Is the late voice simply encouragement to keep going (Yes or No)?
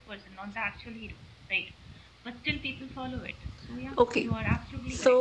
No